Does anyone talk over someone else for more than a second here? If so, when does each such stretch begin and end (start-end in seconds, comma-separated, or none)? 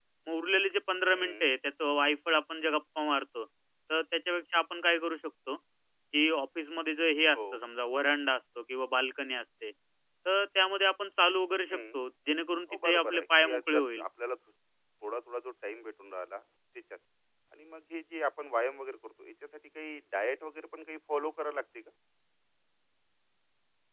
12.7-14.0